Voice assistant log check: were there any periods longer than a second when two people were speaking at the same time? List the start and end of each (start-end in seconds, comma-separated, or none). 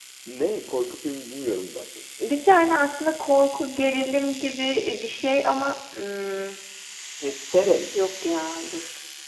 none